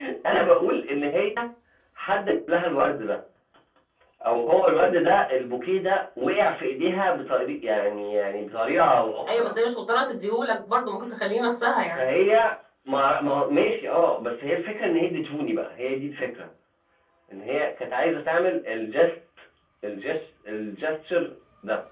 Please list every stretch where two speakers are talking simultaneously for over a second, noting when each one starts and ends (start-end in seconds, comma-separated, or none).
none